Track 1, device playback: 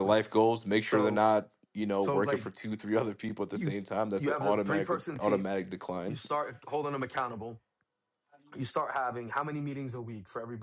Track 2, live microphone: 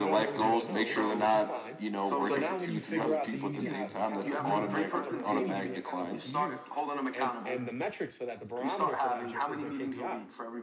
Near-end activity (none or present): present